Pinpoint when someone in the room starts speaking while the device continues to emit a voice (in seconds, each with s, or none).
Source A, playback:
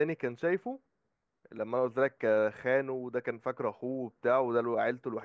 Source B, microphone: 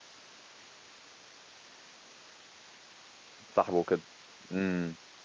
3.5 s